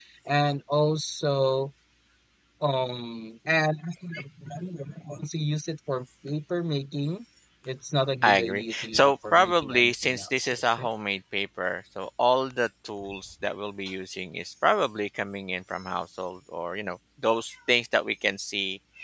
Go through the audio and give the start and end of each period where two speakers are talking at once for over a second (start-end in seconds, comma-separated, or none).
8.2-10.9